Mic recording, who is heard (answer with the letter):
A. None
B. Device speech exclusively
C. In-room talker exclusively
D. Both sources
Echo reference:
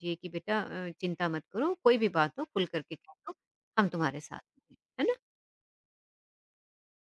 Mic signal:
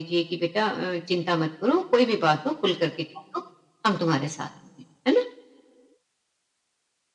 B